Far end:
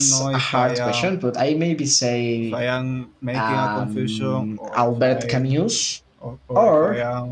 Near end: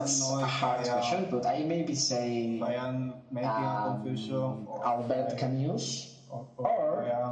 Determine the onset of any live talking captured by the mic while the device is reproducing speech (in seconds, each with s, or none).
none